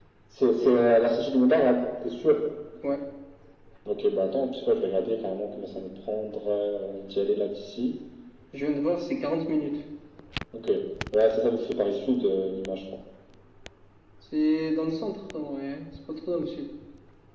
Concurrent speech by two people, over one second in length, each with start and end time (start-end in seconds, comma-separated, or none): none